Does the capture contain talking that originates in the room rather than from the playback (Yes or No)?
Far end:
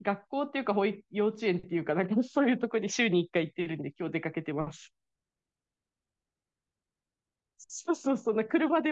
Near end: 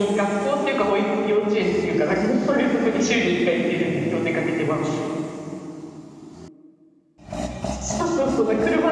No